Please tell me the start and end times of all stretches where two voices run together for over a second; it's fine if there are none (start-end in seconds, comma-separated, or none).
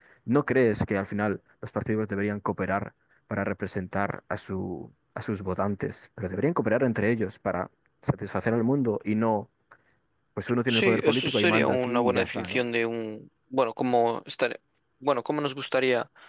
10.7-12.6